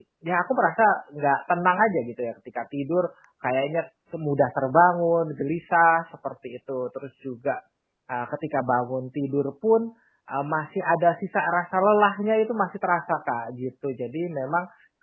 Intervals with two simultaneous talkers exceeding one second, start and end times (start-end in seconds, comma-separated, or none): none